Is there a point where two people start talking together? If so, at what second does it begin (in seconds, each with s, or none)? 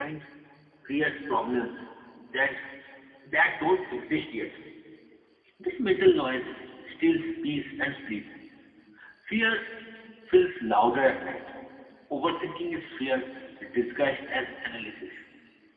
none